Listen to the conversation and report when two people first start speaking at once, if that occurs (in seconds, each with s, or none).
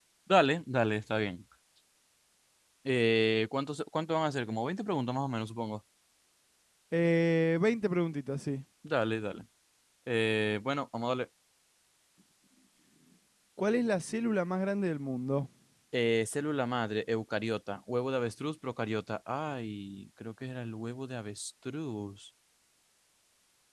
none